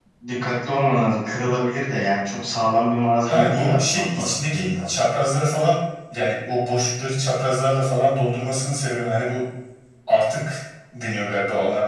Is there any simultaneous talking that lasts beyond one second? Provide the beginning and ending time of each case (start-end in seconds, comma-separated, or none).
3.2-4.9